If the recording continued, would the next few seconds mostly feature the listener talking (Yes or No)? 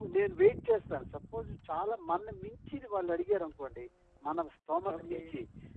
No